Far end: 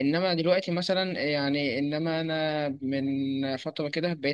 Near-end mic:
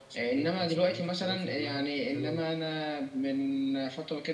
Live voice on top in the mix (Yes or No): No